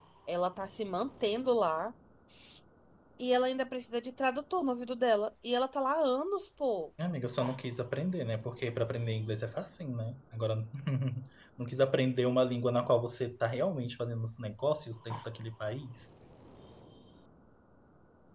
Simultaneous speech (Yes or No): No